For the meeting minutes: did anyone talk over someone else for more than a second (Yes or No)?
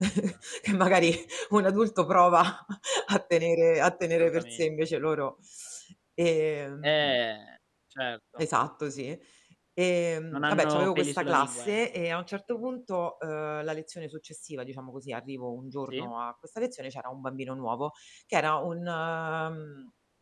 Yes